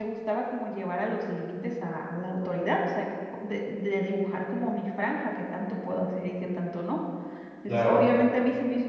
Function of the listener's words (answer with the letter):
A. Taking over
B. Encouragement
B